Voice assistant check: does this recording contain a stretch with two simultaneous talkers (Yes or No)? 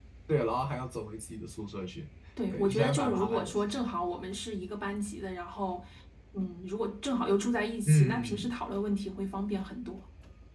Yes